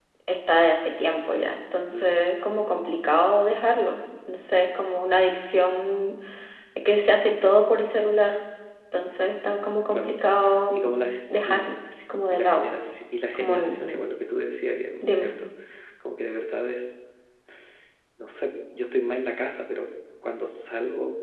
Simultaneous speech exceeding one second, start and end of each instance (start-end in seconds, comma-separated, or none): none